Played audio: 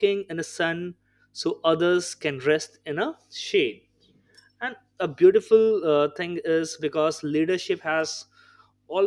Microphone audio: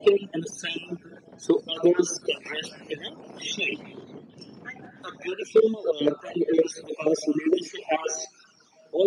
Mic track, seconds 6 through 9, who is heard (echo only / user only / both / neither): echo only